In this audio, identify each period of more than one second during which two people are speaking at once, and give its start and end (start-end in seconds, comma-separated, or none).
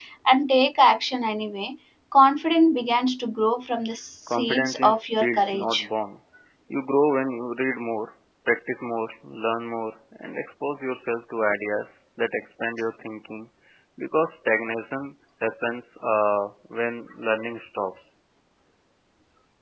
4.3-5.8